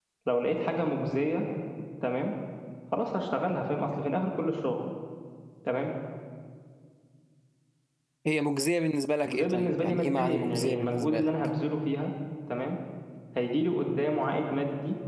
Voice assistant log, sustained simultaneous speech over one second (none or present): present